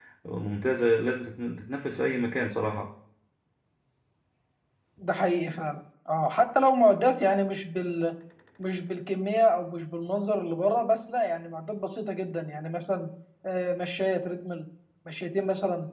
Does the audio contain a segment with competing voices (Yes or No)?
No